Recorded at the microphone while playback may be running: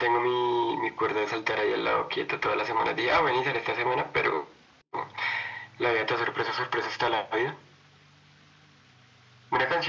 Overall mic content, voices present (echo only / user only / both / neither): echo only